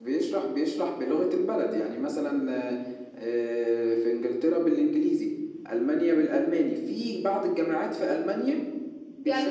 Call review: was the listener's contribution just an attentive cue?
No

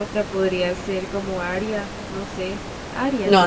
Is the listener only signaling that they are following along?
No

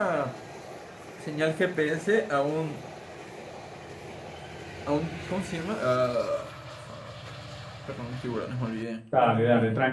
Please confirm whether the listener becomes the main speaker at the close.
Yes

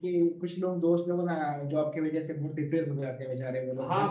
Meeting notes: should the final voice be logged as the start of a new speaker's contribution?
Yes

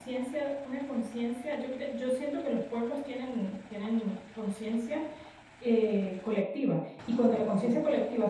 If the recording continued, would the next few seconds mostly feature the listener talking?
No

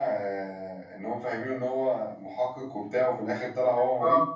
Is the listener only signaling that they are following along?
No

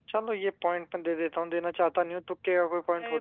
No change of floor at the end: No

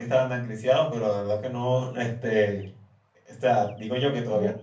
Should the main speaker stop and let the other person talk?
No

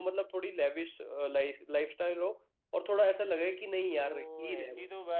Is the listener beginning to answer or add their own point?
Yes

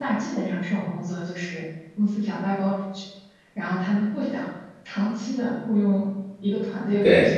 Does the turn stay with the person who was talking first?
Yes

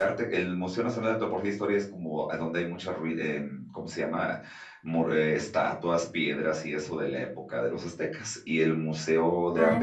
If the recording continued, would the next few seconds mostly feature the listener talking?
No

